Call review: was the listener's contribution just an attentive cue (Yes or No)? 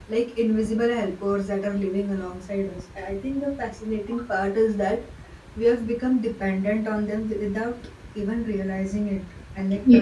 Yes